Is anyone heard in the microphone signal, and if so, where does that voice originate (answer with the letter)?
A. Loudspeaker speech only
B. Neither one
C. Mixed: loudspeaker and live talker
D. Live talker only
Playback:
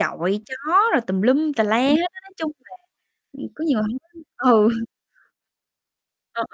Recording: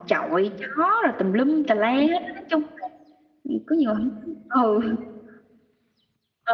A